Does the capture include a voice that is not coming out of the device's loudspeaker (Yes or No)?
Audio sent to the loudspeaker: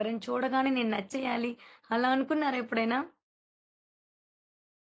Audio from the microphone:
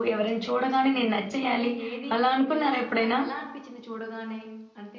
Yes